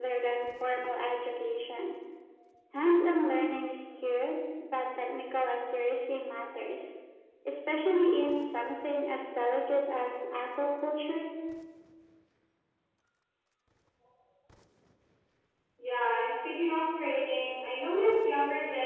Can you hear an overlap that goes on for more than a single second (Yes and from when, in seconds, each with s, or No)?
No